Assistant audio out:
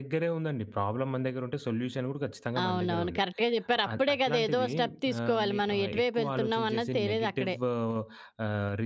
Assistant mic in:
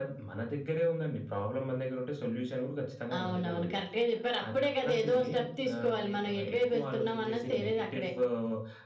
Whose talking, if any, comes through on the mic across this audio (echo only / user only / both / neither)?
echo only